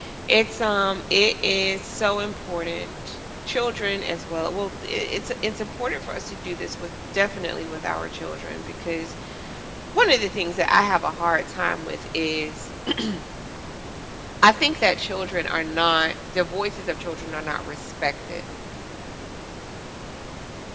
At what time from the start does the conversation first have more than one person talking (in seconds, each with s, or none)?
none